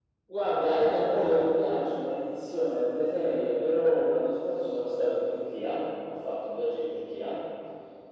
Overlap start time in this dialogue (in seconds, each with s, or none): none